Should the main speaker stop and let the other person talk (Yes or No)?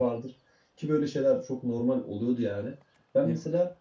No